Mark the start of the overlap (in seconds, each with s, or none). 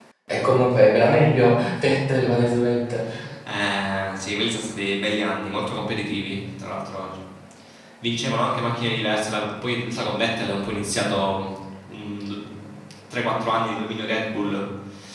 none